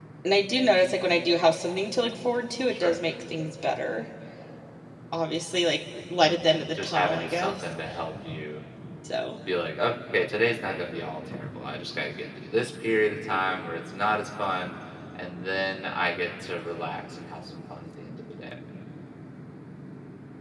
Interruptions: present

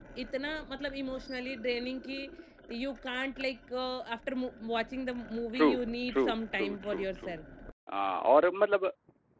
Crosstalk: present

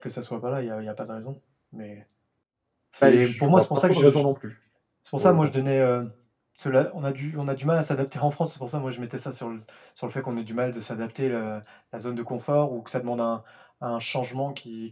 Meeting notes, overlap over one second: present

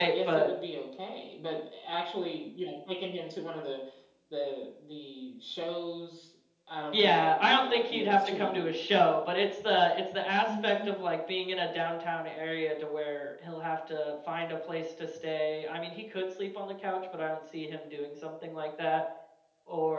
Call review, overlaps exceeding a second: present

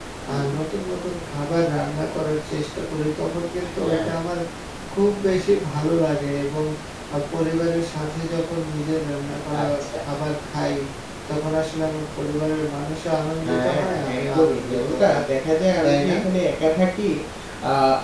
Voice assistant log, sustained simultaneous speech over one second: present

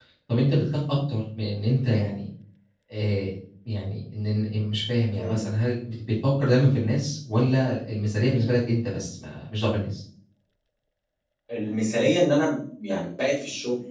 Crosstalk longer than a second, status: none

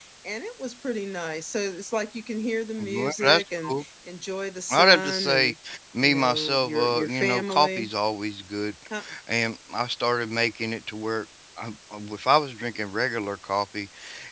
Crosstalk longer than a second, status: present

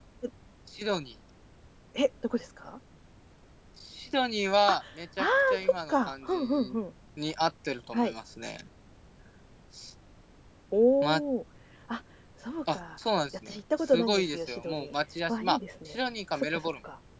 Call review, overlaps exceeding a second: present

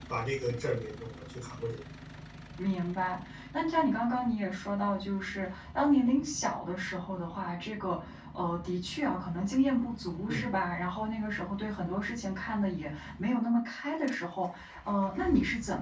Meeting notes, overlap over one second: none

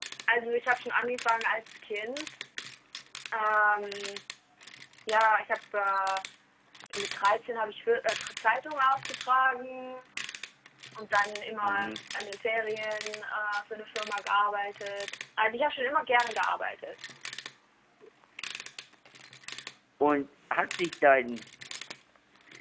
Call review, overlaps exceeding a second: none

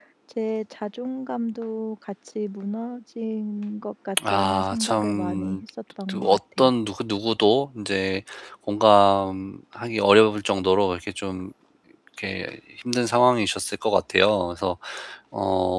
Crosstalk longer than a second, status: present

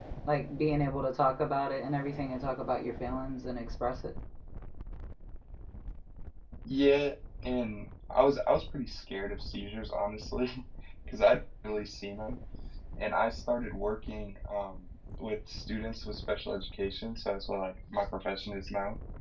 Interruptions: none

